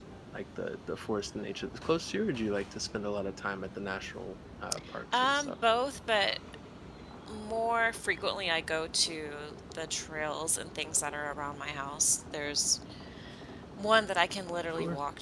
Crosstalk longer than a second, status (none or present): none